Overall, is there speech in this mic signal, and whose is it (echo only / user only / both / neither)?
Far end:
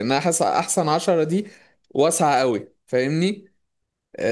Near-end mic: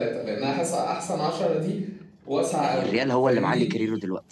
both